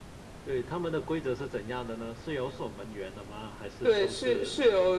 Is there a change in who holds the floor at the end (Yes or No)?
Yes